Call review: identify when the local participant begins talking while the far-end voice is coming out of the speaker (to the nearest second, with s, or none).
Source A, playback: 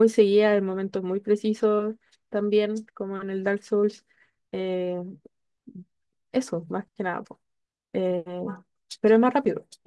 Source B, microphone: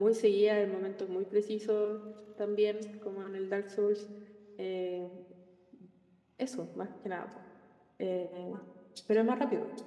none